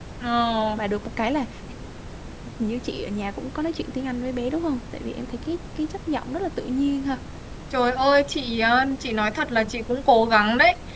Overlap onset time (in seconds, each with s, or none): none